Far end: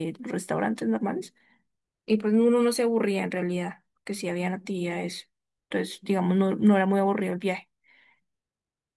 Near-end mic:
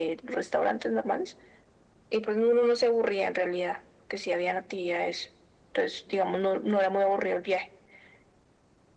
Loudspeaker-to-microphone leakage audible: Yes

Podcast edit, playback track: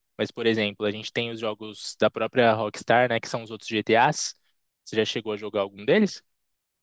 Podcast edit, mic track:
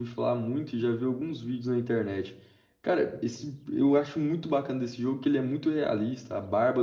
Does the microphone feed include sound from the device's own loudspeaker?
No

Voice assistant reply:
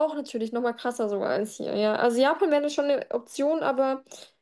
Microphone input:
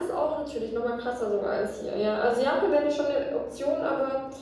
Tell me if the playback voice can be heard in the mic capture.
Yes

